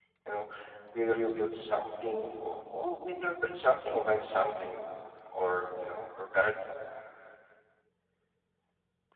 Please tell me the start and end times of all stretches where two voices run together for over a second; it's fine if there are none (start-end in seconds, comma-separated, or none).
none